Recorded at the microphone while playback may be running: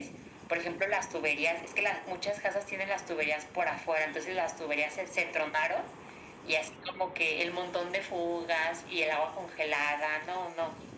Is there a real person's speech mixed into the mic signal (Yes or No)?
No